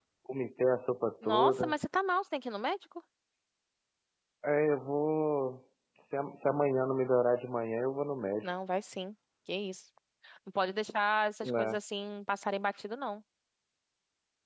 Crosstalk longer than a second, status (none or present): none